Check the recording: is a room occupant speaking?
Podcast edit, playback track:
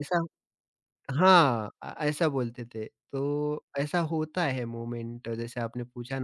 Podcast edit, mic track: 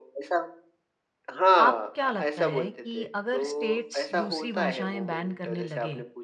Yes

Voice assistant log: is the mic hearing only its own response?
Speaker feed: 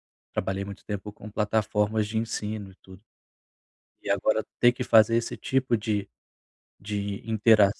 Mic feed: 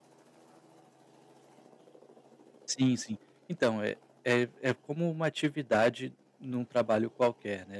No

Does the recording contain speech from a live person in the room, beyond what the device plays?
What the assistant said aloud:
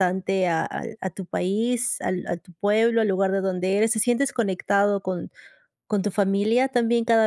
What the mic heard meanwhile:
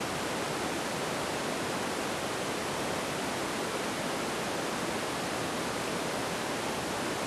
No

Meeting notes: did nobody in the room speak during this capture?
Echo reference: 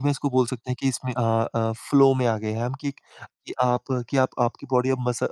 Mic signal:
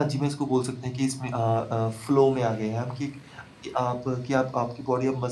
Yes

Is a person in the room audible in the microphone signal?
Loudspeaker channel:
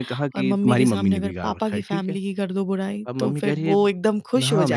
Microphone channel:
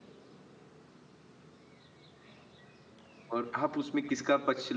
Yes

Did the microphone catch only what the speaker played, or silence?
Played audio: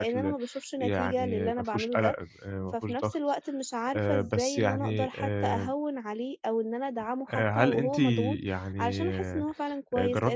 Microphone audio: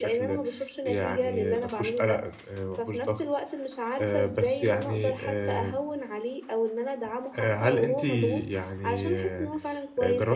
Yes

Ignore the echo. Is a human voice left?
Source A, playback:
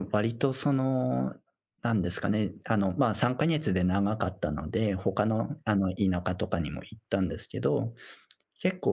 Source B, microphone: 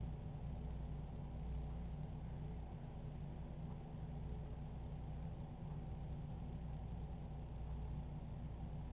No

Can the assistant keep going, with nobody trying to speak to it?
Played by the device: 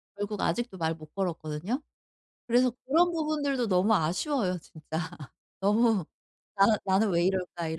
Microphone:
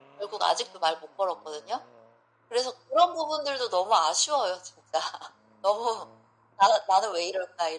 Yes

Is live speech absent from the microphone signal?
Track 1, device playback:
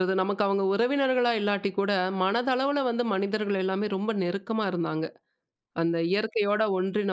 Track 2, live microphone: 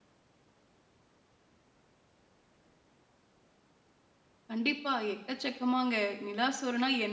No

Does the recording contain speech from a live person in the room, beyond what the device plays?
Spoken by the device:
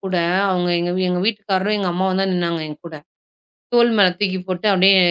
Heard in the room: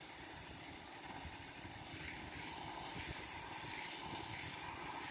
No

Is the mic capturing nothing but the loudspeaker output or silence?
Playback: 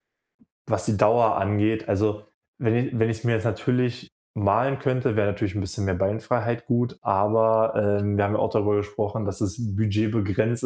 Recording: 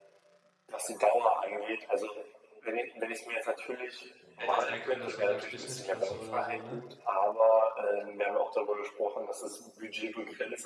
No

